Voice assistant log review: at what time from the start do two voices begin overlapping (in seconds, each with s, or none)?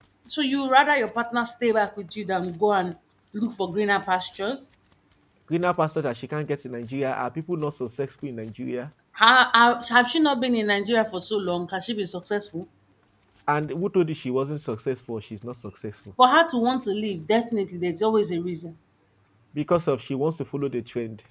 none